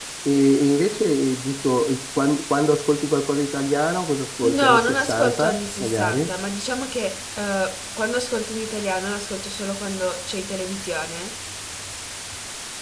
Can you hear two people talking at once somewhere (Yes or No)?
Yes